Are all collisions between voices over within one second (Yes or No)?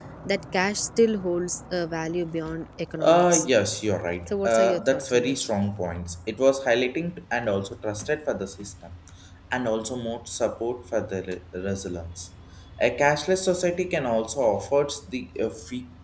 No